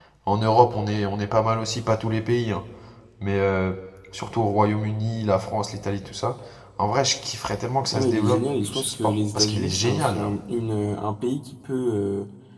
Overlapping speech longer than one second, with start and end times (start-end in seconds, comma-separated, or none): 7.9-10.3